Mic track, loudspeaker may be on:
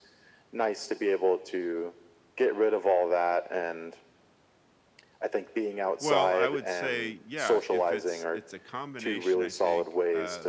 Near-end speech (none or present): present